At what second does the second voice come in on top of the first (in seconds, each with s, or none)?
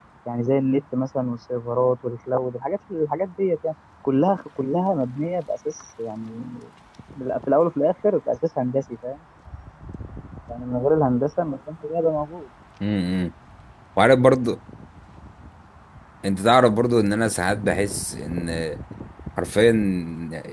none